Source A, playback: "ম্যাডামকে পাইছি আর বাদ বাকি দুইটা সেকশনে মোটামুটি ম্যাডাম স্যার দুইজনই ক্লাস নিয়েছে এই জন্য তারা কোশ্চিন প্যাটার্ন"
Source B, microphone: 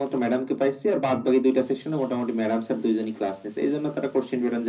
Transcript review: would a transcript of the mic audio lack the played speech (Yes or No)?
No